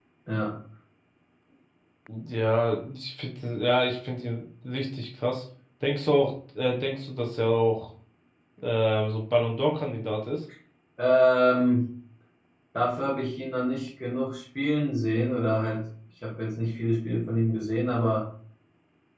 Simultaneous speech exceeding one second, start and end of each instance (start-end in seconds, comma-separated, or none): none